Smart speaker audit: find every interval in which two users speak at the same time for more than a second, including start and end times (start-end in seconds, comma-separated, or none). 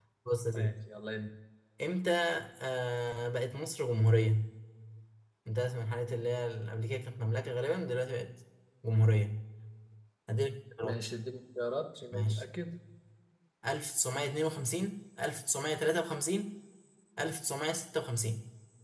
none